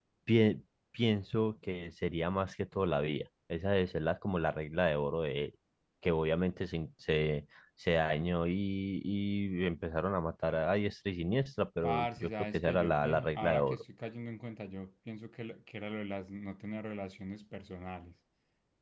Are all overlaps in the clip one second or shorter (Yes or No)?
No